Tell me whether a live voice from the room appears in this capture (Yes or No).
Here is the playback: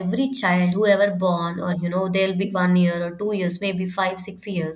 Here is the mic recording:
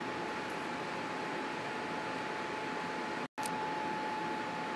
No